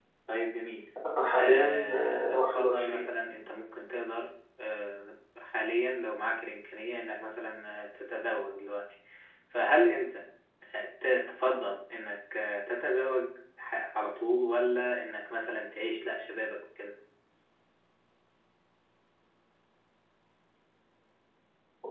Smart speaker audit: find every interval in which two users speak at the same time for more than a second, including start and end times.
1.4-3.1

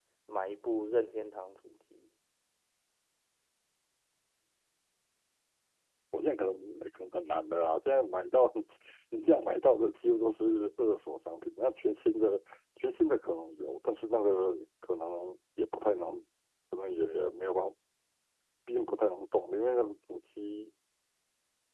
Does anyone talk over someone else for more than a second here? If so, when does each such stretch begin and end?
none

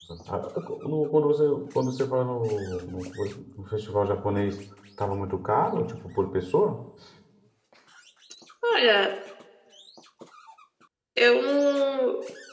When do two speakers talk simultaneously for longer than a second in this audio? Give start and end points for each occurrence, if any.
none

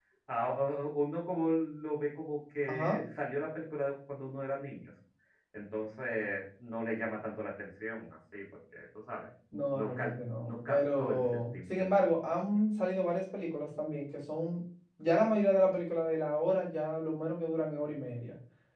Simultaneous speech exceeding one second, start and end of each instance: 9.7-11.9

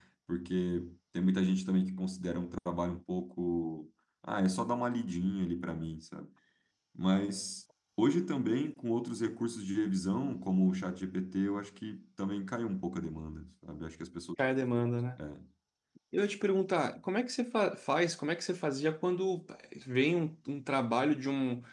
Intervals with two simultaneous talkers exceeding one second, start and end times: none

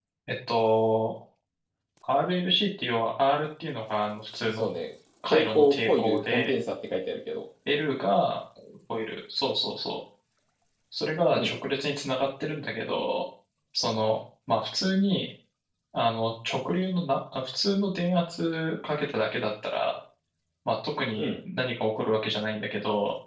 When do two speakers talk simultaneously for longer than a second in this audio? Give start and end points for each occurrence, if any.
5.3-6.6

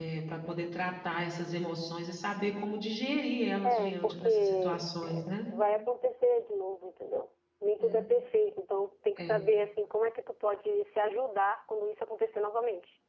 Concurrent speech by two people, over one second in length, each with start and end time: 3.6-5.3

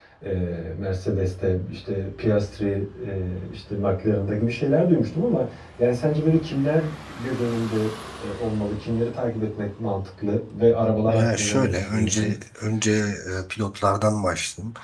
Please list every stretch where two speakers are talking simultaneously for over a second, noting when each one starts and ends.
11.1-12.3

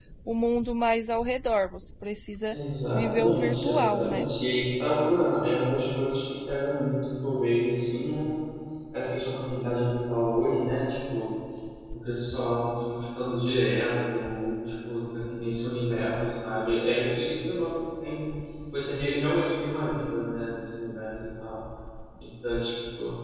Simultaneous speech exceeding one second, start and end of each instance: 2.9-4.2

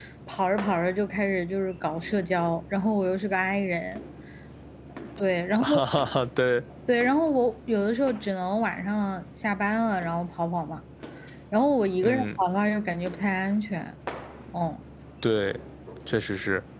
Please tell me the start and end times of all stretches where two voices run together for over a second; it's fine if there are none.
none

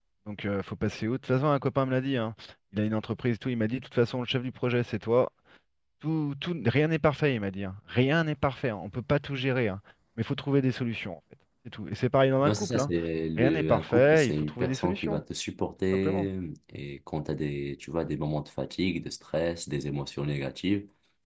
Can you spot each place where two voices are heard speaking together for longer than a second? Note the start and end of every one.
13.4-15.2

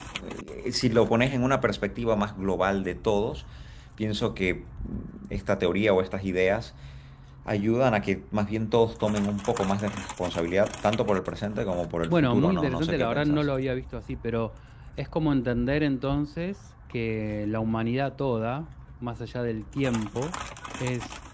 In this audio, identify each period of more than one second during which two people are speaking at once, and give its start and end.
12.1-13.4

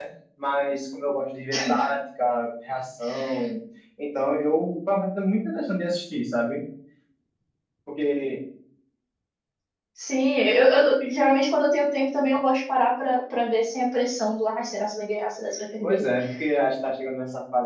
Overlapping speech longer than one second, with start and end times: none

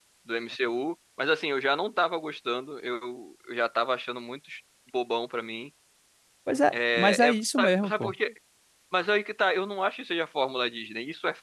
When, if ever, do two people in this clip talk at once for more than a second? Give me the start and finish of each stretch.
6.7-8.1

